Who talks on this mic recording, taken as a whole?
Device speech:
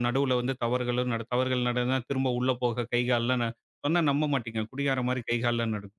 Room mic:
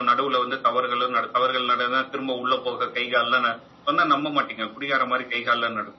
echo only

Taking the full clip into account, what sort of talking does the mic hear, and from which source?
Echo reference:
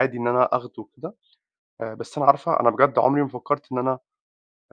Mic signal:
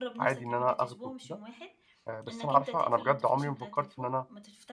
both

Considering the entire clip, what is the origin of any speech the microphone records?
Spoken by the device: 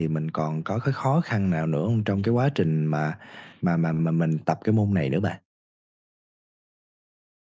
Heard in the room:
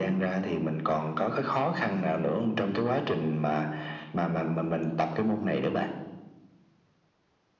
echo only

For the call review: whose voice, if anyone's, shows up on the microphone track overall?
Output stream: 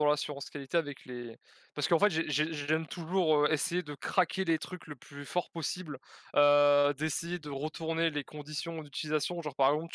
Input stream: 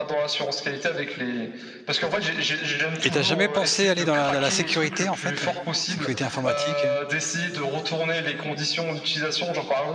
both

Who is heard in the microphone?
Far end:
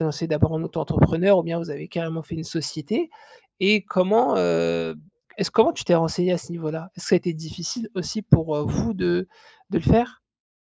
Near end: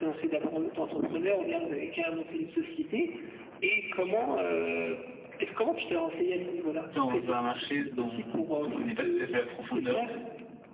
both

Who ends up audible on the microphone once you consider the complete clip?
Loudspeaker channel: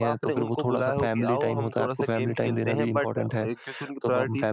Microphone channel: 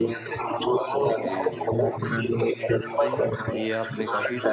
both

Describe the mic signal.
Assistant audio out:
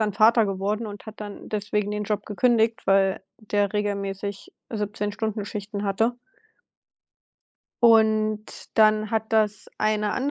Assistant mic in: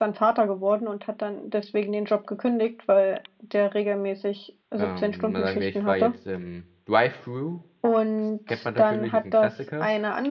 both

